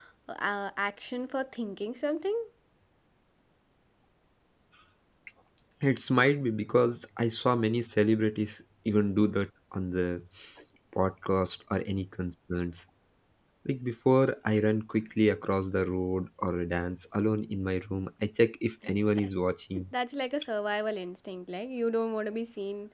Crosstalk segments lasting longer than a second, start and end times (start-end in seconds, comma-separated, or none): none